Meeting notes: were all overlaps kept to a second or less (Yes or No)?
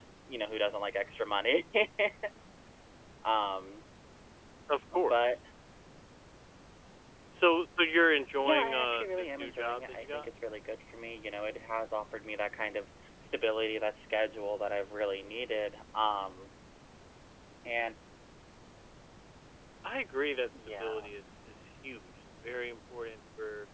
No